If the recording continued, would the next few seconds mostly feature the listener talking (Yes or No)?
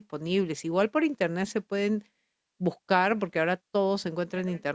No